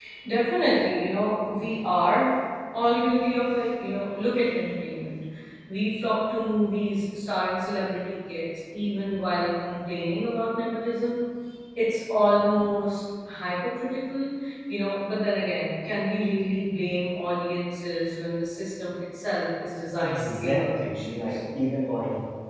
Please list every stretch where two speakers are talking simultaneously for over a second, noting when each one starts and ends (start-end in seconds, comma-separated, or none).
20.0-21.4